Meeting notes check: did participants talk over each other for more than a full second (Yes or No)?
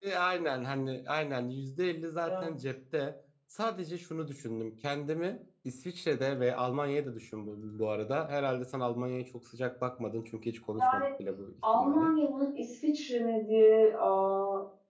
No